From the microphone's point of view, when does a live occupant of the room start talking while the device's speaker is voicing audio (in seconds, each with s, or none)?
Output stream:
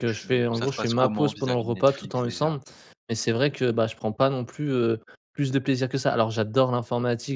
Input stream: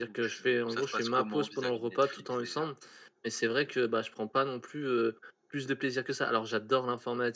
none